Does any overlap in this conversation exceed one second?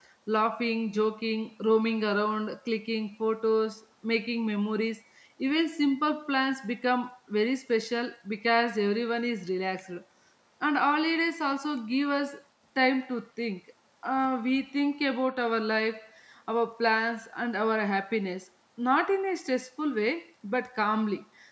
No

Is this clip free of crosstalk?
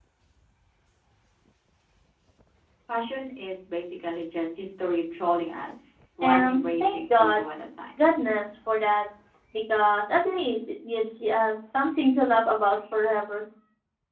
No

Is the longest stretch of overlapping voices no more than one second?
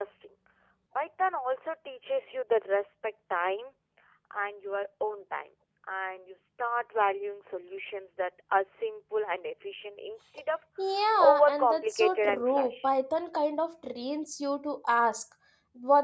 No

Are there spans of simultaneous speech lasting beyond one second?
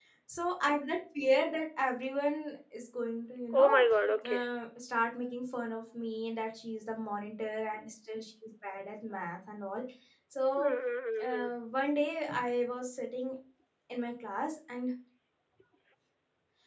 No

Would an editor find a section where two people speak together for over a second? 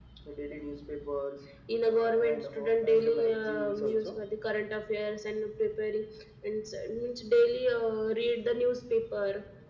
Yes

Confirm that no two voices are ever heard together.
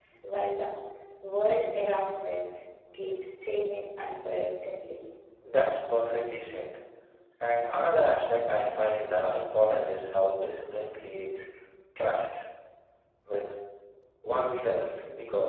Yes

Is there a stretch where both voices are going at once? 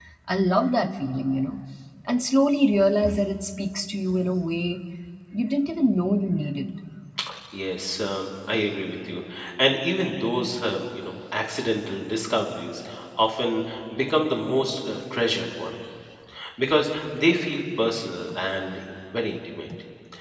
No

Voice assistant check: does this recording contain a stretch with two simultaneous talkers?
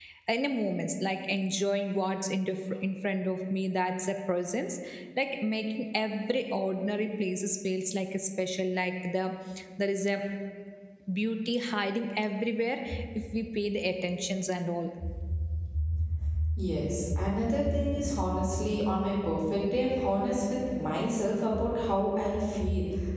No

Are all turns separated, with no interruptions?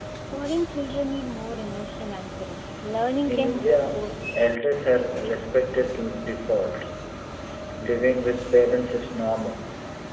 No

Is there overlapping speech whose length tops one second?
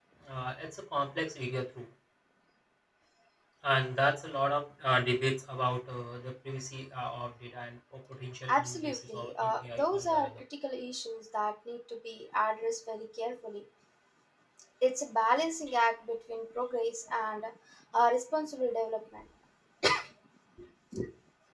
Yes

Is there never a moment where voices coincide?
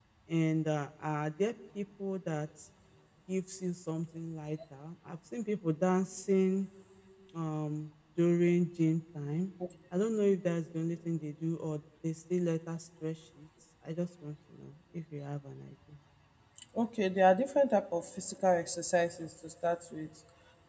Yes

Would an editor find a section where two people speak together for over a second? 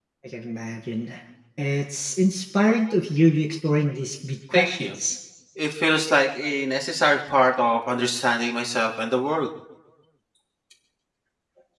No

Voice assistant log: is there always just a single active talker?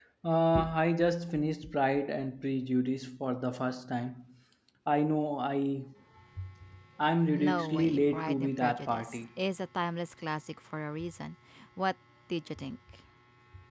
No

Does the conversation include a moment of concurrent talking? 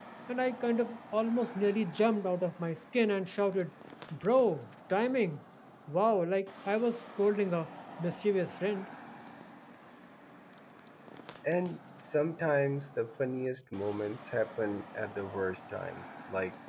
No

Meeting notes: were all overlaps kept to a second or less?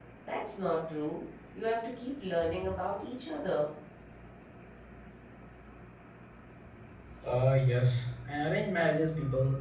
Yes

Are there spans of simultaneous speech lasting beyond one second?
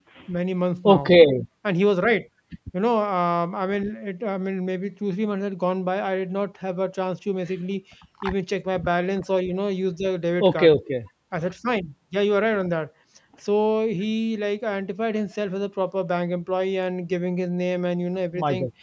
No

